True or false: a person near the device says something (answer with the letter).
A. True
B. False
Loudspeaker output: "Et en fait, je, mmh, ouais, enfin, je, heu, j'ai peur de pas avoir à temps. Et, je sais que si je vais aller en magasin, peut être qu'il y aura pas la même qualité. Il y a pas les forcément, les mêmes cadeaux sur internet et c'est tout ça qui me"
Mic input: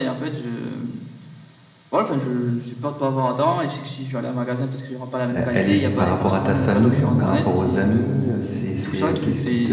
A